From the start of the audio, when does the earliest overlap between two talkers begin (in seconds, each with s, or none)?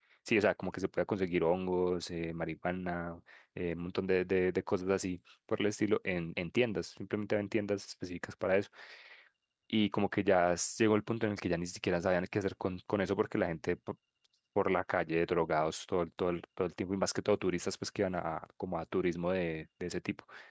none